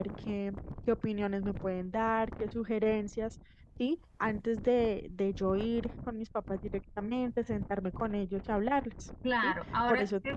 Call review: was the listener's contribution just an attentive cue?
No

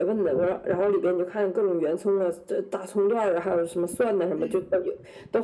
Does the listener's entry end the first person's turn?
No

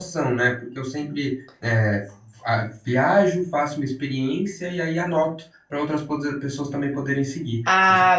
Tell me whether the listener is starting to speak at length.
Yes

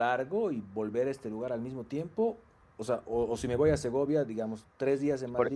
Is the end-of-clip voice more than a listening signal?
Yes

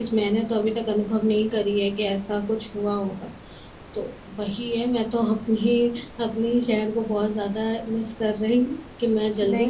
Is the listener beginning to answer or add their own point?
Yes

